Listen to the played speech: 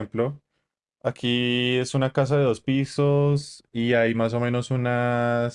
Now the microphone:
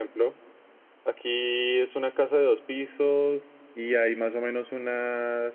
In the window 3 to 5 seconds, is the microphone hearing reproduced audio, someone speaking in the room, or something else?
echo only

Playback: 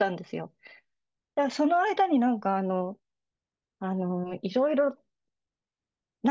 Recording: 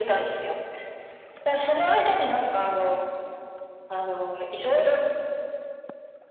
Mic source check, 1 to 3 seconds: echo only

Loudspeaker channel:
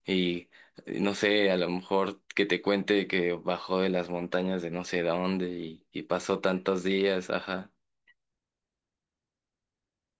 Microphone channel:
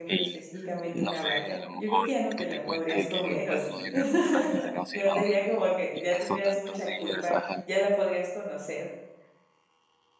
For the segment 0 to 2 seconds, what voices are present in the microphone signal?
both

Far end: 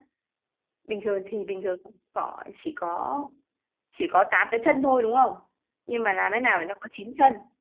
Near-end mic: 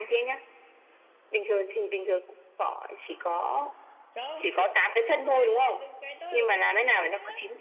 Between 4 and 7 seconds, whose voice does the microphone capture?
both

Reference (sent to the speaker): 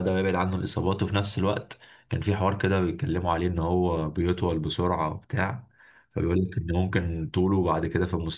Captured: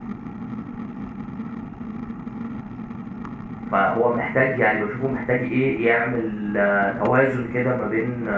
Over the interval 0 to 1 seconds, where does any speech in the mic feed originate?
neither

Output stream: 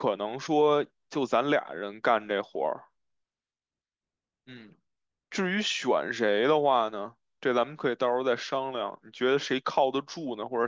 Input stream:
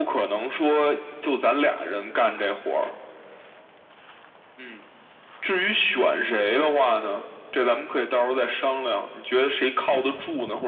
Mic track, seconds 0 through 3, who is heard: echo only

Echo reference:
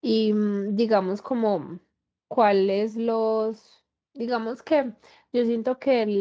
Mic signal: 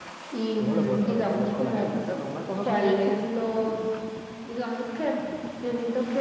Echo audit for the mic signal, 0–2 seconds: both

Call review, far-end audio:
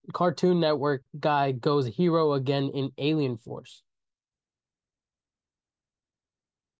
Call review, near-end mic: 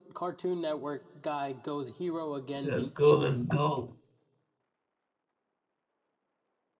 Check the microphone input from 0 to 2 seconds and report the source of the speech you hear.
echo only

